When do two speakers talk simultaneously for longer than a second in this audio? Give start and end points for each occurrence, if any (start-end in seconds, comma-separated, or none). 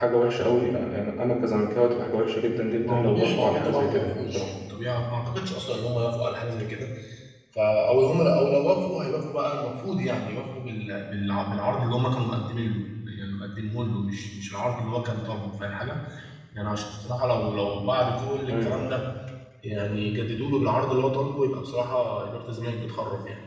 2.8-4.5